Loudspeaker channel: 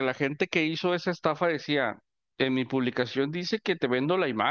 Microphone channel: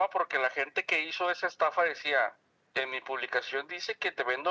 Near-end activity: none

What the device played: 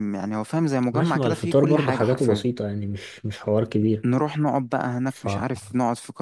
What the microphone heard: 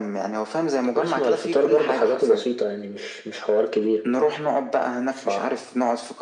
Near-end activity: none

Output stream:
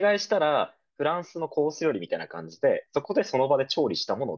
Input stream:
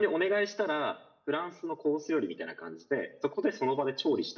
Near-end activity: none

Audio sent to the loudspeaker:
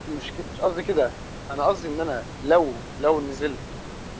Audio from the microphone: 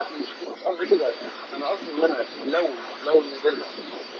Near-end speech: none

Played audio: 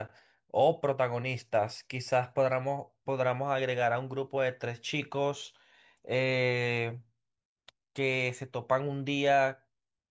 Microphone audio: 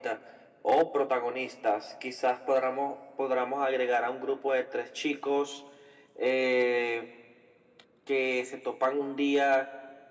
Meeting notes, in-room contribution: none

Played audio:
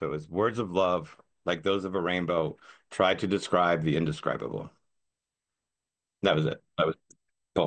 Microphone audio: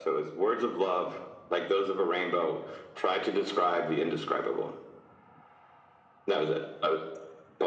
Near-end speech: none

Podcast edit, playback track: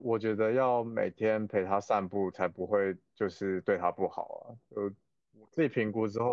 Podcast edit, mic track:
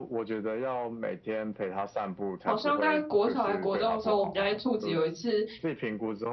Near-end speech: present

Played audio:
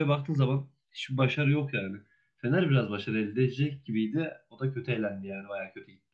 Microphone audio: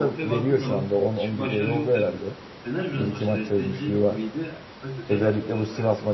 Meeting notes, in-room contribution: present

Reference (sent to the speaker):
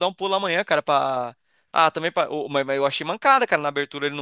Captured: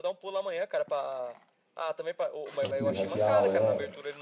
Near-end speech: present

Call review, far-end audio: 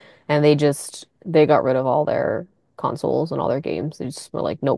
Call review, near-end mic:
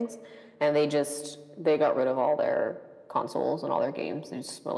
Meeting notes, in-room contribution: none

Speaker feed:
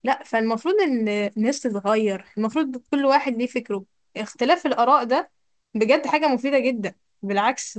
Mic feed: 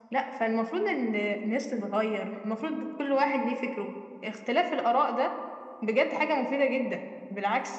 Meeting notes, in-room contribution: none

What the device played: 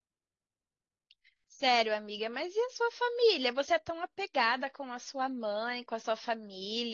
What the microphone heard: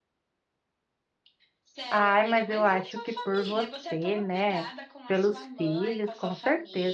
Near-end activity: present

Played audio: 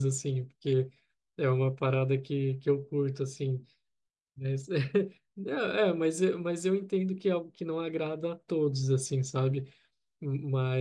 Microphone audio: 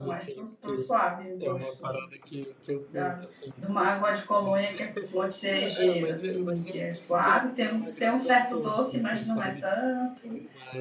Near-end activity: present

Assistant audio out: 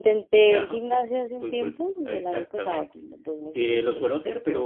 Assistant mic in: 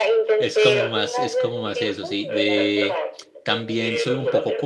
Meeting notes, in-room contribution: present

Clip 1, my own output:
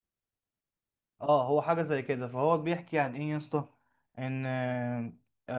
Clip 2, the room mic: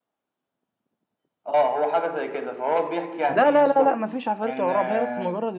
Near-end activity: present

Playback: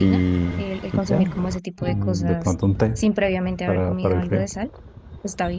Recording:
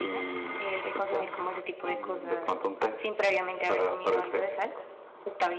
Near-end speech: none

